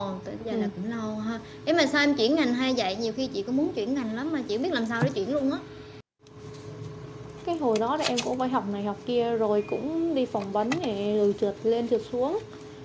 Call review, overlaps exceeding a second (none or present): none